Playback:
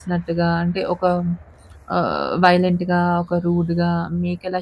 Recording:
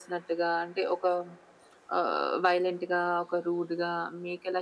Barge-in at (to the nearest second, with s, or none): none